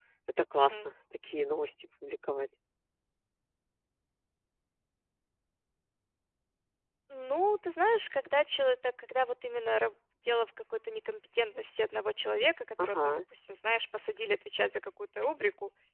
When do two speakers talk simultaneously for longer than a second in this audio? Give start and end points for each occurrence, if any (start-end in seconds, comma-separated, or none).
none